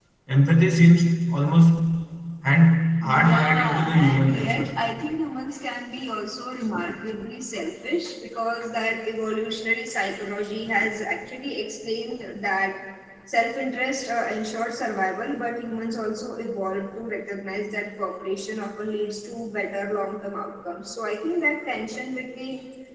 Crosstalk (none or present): present